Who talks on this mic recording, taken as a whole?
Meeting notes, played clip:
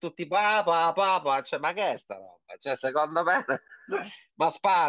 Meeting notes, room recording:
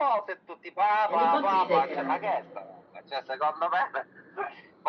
both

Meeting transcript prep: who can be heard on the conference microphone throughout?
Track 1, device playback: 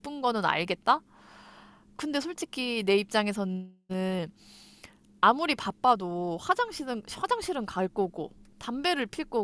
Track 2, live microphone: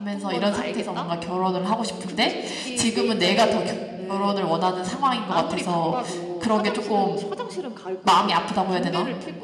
both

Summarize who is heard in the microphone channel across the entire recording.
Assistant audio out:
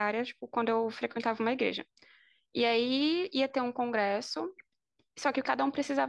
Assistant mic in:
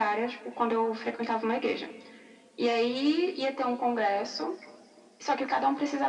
echo only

